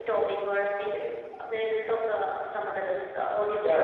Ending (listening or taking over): taking over